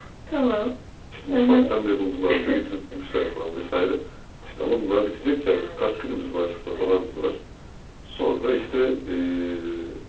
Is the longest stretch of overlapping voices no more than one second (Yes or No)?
Yes